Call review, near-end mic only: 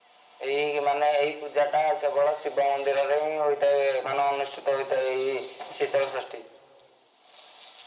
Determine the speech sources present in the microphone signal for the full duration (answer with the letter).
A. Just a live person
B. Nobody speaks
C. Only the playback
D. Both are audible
C